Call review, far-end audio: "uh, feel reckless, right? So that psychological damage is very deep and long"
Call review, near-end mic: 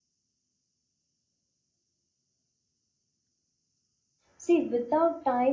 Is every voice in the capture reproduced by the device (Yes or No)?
No